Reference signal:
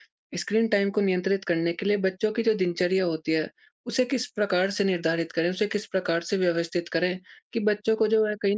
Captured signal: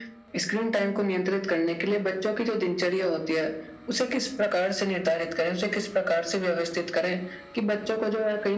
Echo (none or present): present